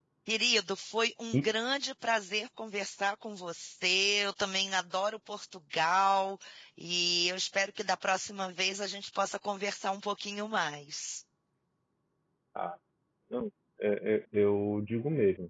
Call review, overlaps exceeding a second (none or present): none